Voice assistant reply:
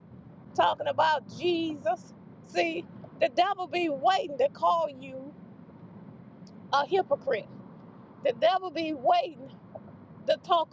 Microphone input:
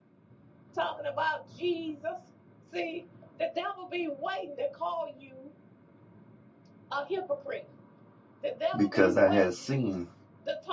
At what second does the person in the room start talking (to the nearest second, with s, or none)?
9 s